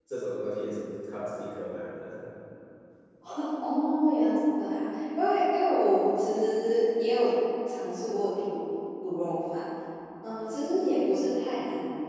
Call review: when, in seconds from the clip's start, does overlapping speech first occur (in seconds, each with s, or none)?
none